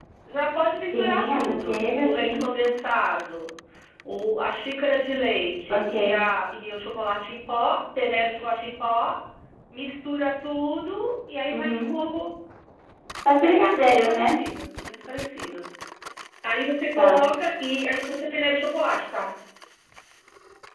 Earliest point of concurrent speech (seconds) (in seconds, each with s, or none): 0.9 s